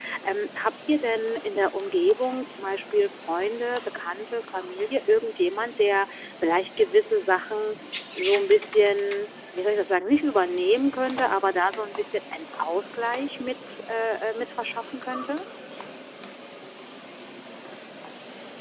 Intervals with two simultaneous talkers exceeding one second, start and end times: none

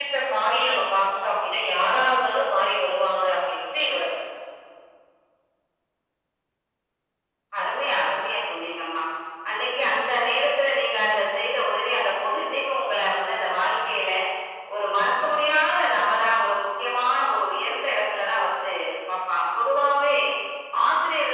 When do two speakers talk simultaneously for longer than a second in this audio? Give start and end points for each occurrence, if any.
none

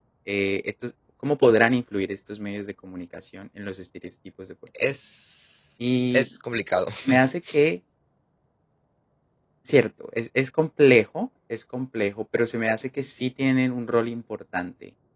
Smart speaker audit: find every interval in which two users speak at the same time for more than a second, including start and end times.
none

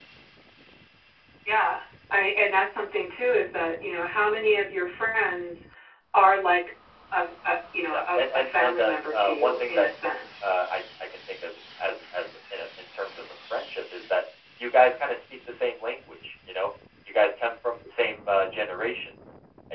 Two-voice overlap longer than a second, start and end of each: 7.9-9.9

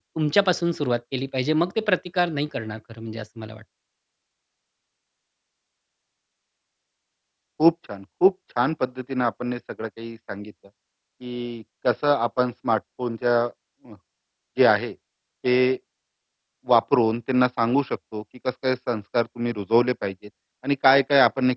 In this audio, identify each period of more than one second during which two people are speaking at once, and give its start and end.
none

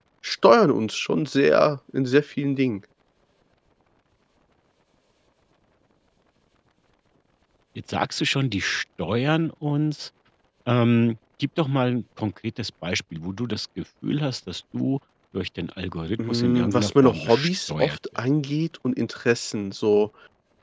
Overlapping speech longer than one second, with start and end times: 16.3-18.0

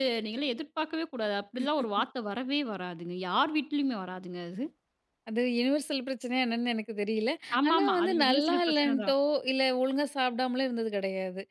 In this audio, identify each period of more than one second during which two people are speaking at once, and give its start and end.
7.7-9.1

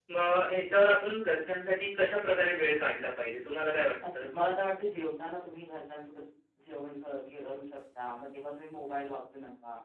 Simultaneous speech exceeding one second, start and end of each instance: none

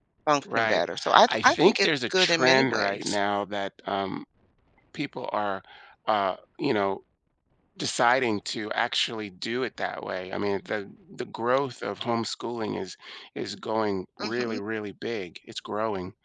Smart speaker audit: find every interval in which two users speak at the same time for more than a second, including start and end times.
1.3-3.2

